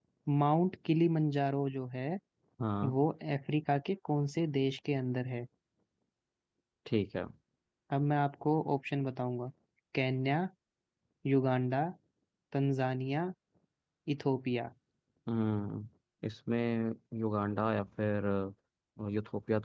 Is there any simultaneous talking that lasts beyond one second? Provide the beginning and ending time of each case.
none

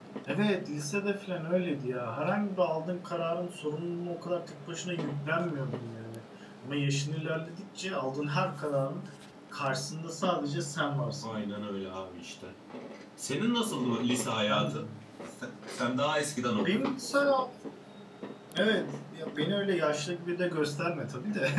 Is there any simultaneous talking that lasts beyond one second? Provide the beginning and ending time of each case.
none

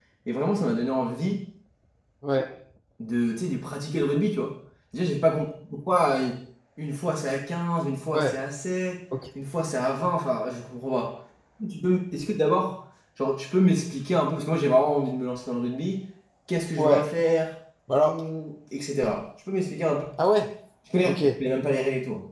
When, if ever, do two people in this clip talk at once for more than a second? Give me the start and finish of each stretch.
none

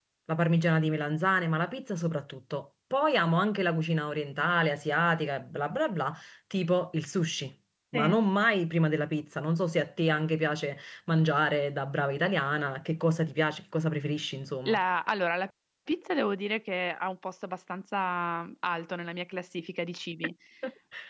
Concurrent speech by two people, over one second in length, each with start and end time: none

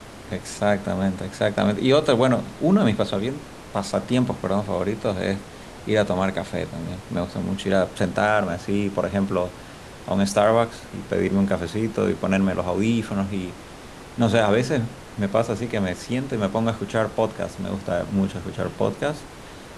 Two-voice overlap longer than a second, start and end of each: none

